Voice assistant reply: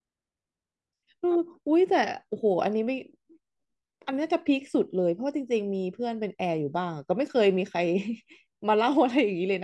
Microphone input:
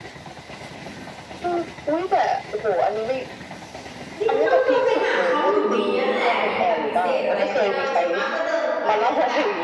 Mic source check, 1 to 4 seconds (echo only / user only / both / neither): echo only